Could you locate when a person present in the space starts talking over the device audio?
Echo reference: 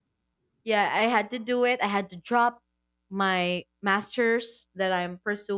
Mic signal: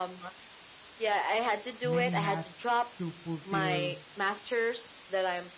1.8 s

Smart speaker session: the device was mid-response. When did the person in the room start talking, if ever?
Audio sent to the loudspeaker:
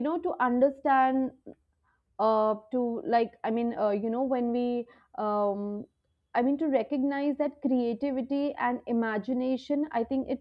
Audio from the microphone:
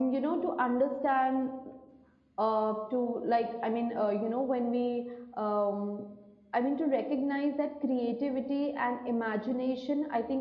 none

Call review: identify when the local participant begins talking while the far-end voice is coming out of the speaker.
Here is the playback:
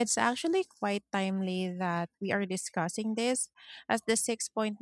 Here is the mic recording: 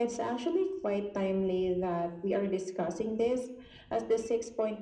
none

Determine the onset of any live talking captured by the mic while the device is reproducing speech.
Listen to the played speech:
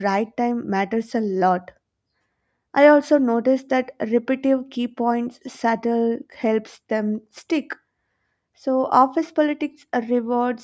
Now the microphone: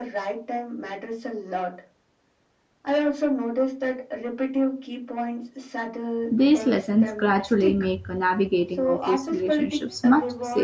6.3 s

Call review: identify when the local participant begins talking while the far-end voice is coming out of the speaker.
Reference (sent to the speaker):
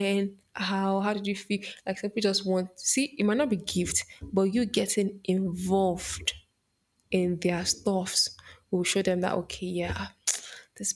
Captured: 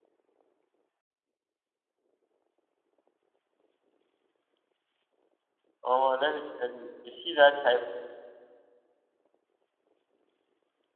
5.8 s

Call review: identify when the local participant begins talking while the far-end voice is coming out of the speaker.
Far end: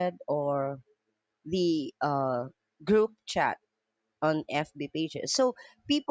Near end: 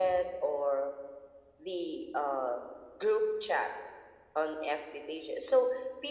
none

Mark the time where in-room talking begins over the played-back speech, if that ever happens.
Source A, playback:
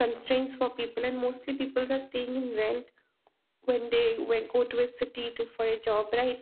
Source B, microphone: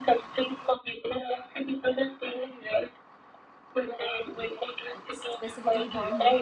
4.9 s

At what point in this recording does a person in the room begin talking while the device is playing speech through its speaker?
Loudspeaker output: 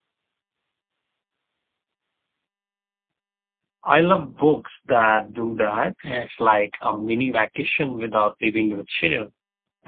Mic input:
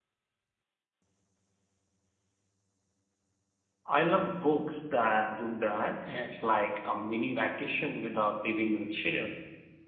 none

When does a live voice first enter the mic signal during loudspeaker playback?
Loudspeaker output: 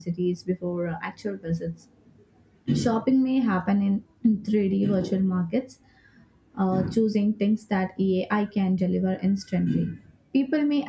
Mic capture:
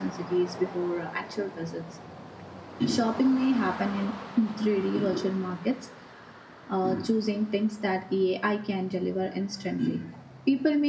none

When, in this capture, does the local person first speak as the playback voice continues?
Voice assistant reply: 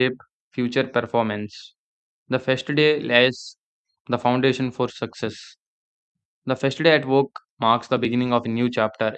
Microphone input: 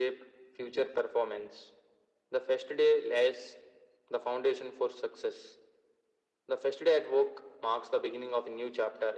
none

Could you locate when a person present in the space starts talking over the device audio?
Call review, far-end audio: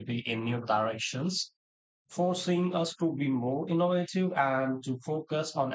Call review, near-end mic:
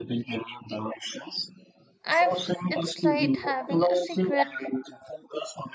2.0 s

